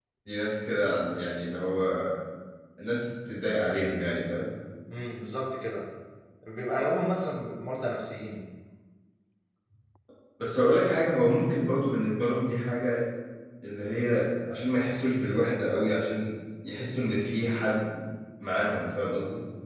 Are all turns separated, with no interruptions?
Yes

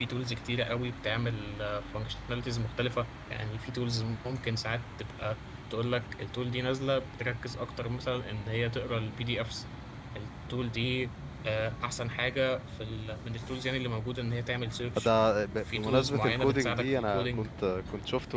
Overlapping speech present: Yes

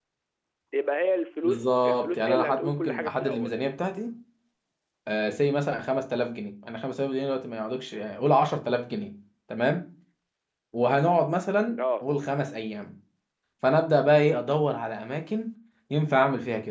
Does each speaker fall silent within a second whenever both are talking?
No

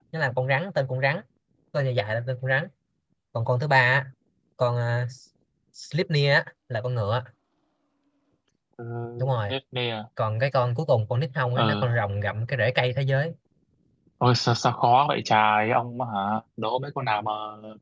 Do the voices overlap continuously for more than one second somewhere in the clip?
No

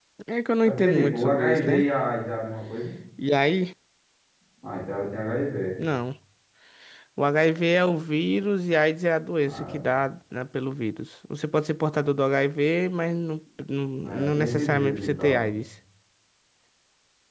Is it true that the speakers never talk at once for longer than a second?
No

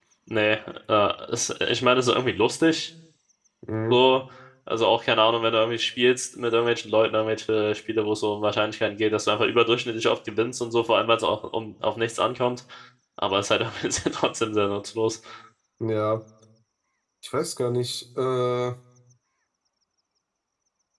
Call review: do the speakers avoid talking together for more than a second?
Yes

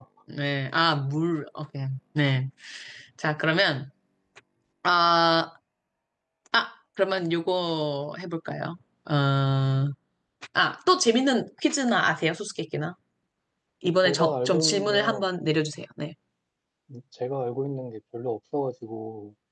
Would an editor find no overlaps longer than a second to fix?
No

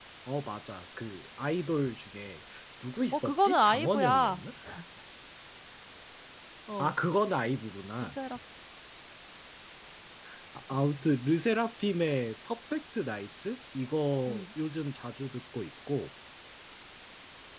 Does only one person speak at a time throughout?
No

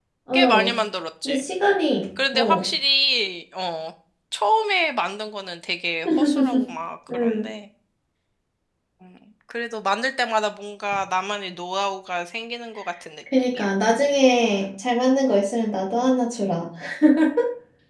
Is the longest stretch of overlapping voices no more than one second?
Yes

